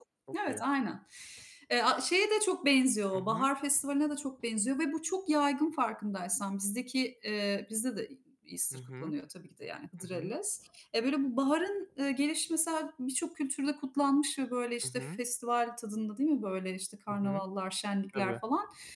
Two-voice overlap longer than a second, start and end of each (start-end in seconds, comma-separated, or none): none